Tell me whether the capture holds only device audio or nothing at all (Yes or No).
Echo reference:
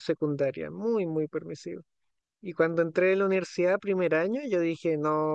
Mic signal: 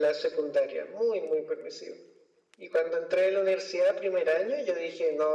Yes